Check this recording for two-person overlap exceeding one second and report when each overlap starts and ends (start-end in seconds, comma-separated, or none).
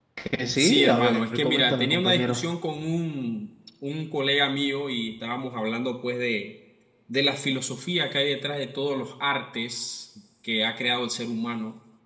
0.6-2.4